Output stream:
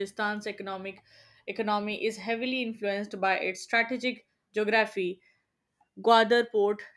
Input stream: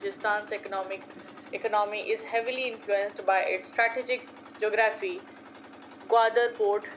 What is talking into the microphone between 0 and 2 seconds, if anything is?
echo only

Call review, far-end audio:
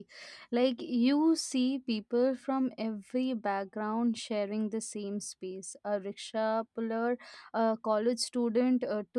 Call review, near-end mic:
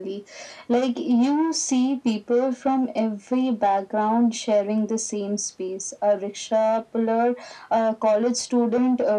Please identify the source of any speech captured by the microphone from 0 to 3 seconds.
echo only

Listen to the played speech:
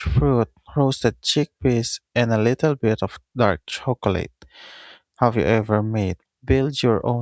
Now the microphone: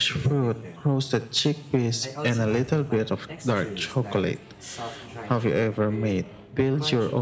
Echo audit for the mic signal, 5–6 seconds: both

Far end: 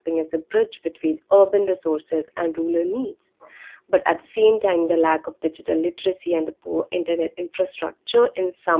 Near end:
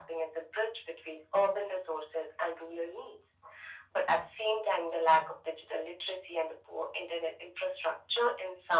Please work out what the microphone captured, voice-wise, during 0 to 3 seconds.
echo only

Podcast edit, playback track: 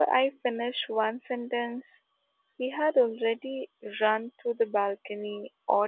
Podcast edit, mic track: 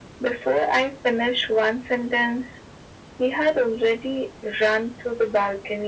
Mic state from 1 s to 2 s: echo only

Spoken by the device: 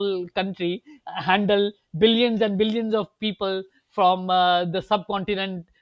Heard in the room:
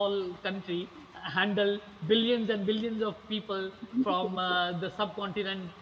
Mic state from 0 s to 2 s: echo only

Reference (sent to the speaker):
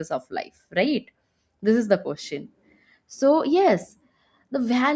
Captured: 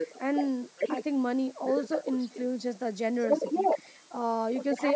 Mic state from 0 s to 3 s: both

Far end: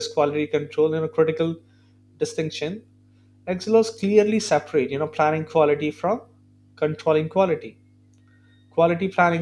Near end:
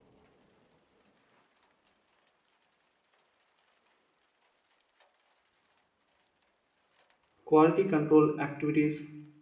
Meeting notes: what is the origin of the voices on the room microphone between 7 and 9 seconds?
user only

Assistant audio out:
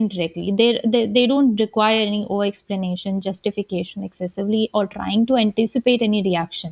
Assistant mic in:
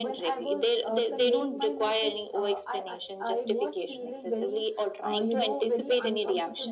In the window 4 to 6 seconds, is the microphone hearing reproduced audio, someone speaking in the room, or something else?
both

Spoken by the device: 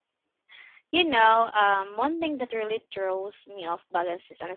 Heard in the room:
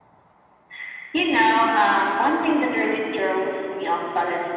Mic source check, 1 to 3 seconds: echo only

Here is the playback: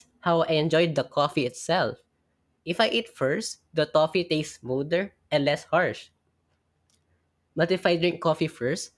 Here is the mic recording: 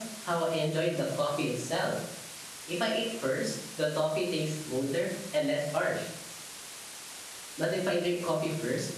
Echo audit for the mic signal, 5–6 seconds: echo only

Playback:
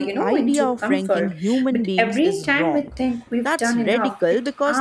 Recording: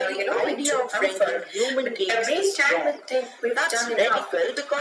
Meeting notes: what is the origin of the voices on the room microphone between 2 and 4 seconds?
echo only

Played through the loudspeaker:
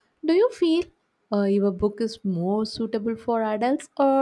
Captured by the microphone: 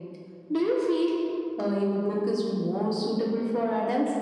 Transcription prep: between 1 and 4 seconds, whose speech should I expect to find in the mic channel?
echo only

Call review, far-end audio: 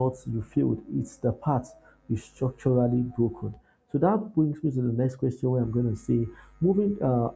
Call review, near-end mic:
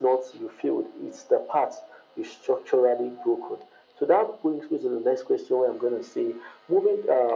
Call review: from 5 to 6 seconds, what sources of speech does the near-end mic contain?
echo only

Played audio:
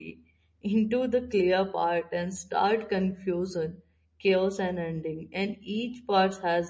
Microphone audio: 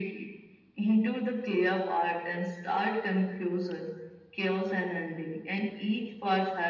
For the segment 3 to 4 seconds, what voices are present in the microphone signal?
echo only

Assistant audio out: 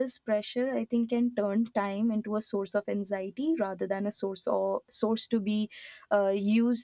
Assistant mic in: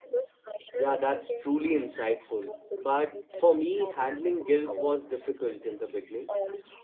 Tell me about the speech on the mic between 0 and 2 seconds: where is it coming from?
both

